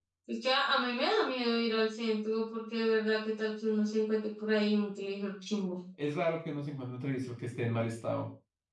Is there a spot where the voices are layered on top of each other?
No

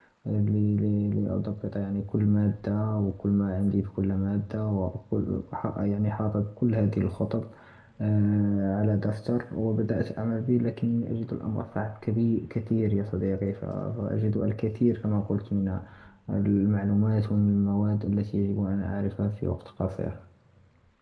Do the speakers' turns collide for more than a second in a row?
No

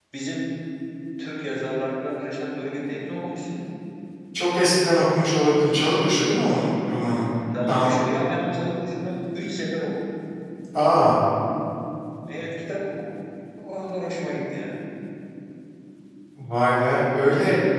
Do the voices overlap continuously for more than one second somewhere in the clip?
No

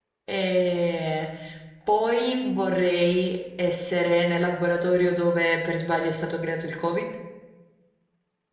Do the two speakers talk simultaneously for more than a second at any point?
No

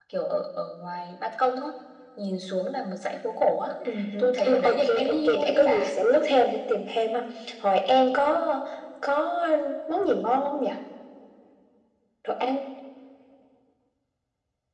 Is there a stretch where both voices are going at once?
Yes, from 4.2 s

